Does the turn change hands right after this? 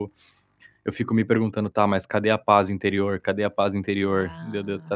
No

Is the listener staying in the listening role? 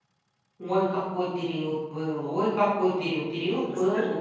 Yes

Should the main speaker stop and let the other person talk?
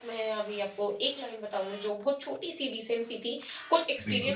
No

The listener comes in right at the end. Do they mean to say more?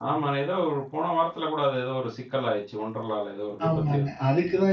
Yes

